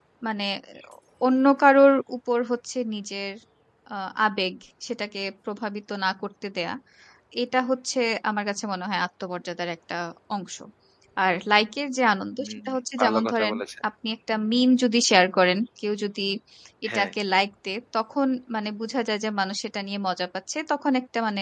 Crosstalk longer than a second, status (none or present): present